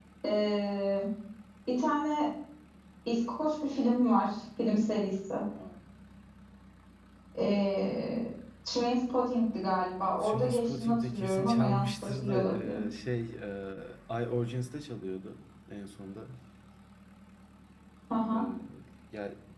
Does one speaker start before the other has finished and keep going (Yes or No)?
Yes